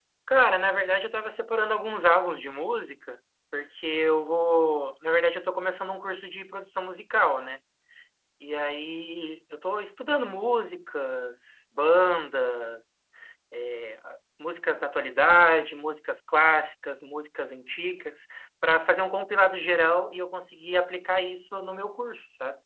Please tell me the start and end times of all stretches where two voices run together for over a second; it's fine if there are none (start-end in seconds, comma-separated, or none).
none